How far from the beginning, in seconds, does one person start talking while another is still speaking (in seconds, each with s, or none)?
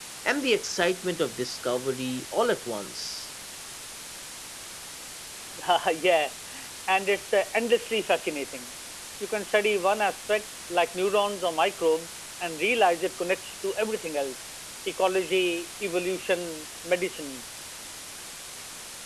none